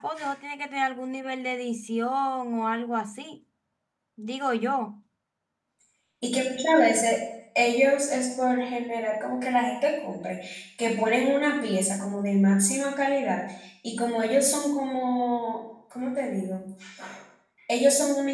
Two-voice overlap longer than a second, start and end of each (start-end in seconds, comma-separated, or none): none